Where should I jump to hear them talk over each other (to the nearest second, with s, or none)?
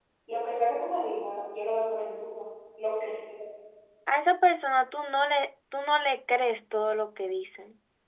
none